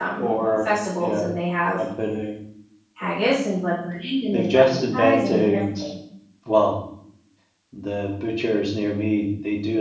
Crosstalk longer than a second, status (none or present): present